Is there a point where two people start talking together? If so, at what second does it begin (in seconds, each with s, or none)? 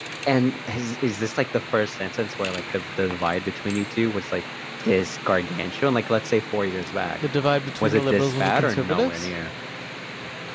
7.8 s